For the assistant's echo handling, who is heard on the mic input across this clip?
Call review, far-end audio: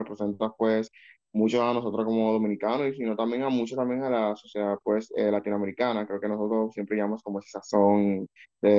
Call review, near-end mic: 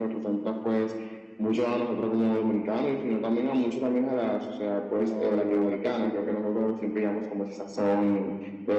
both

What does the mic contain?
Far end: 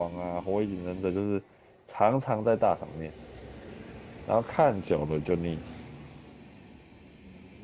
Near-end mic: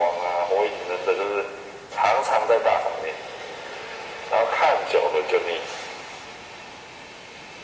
echo only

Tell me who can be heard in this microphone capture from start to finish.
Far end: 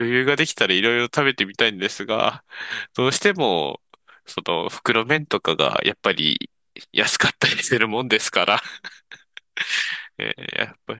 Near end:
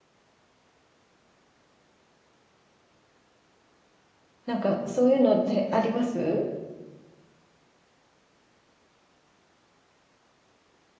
user only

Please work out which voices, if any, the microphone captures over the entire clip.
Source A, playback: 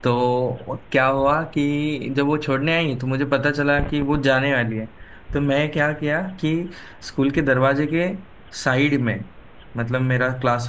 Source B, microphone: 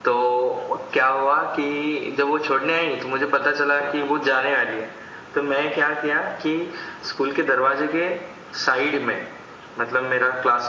echo only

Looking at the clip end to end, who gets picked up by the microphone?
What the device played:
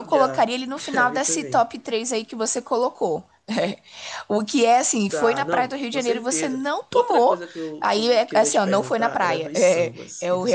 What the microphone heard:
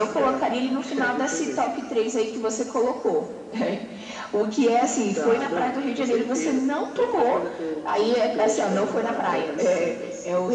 echo only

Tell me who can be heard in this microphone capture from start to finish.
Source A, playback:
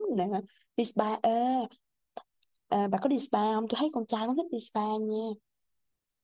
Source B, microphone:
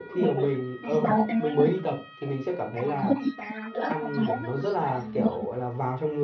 both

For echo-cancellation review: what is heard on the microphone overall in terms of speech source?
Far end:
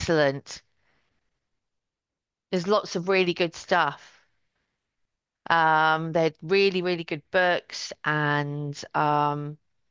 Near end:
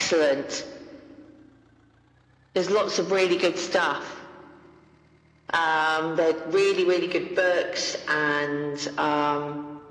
echo only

